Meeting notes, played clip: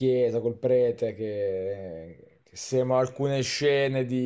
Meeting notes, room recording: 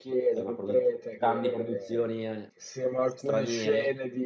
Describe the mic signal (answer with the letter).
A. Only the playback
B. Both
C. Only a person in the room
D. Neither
B